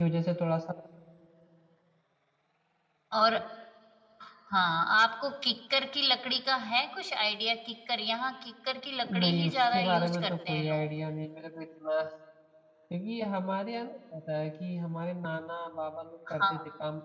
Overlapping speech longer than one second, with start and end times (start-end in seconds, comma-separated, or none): 9.1-10.9